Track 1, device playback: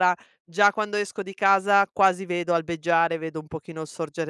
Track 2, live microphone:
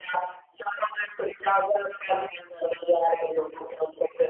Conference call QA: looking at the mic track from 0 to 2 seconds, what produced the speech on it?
echo only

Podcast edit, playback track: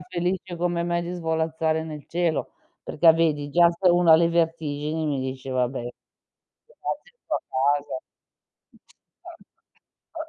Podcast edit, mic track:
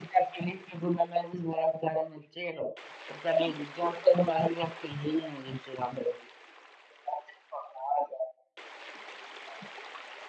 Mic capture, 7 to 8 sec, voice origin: echo only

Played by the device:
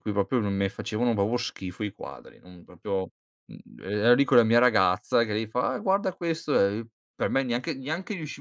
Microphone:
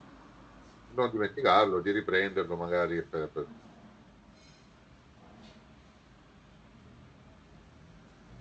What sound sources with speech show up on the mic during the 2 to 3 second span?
user only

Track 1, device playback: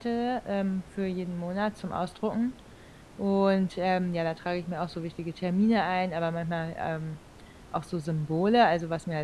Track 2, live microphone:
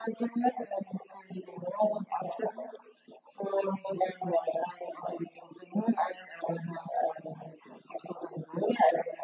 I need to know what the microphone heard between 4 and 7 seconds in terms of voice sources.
echo only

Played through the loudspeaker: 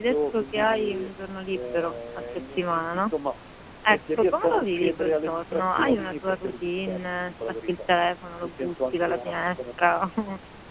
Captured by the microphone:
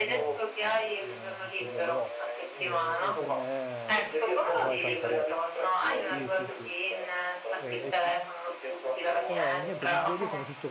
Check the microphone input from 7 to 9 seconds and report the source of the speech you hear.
both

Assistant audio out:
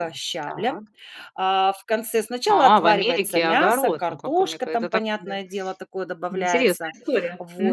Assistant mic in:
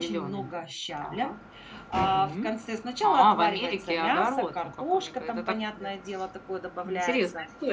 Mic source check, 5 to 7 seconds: echo only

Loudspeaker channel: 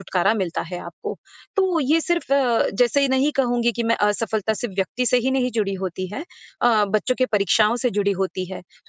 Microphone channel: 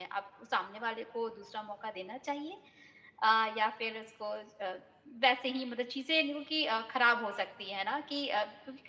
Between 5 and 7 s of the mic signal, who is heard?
user only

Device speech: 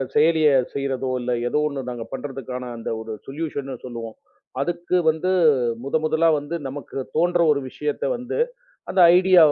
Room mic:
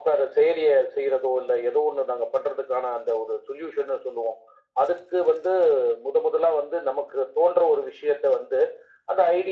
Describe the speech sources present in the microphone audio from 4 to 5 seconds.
echo only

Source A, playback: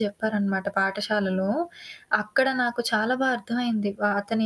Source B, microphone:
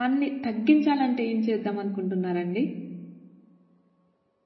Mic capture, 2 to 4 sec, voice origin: user only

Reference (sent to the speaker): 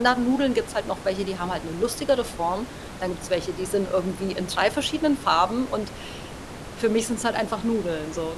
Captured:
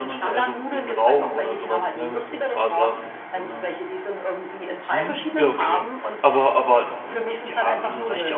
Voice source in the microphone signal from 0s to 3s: both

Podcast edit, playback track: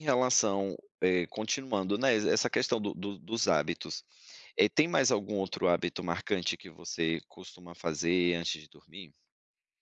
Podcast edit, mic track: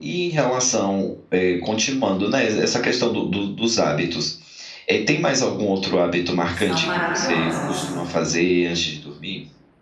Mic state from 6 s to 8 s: both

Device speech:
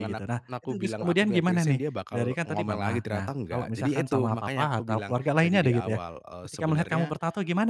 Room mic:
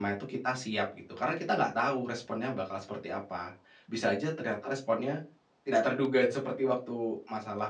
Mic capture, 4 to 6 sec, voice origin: user only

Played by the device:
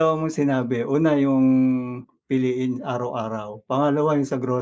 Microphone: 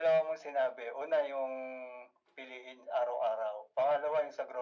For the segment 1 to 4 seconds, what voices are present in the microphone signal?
echo only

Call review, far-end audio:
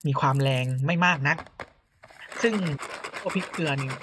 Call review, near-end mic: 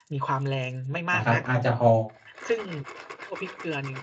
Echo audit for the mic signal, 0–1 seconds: echo only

